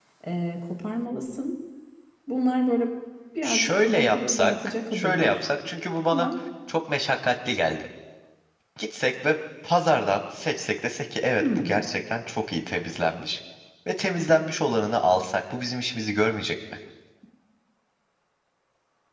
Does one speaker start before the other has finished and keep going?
Yes, from 3.4 s

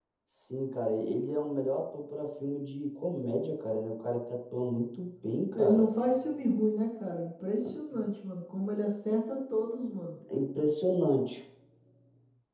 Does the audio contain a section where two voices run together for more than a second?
No

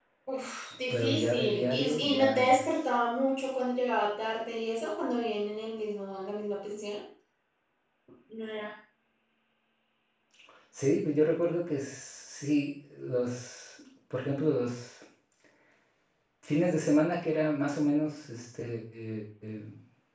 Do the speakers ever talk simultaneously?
Yes, from 0.9 s

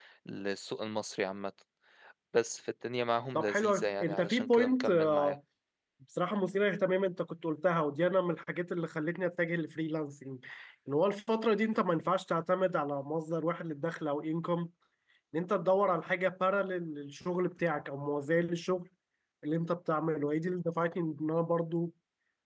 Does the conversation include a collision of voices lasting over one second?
Yes, from 3.4 s

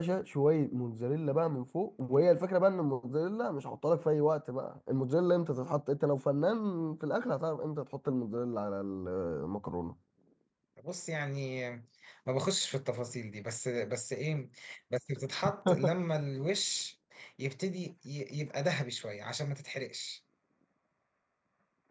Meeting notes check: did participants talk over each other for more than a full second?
No

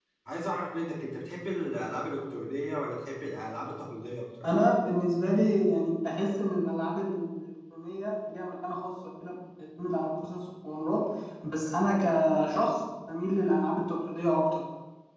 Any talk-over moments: No

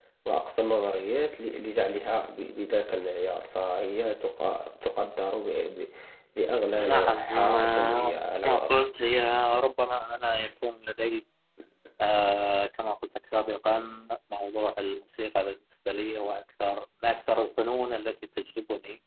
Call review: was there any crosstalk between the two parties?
Yes, from 6.8 s

